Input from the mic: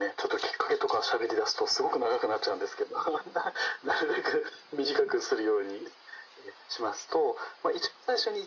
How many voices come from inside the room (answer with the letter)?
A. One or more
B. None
B